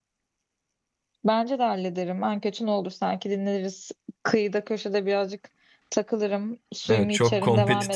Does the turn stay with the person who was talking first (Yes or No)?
No